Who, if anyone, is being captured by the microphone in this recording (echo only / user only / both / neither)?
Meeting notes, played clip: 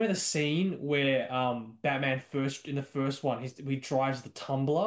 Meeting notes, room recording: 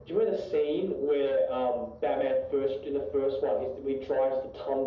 echo only